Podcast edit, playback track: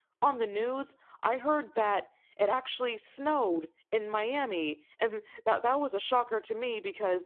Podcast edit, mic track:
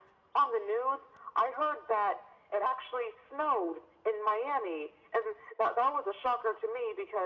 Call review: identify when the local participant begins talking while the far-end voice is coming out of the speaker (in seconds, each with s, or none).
none